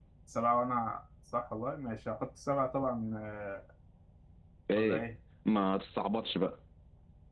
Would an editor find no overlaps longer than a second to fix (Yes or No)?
Yes